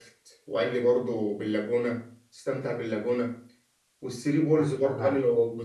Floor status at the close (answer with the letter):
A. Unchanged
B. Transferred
A